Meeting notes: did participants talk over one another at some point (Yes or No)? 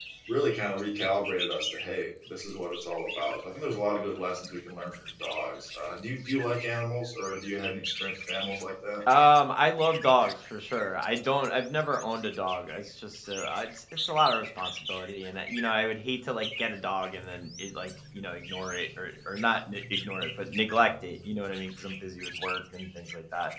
No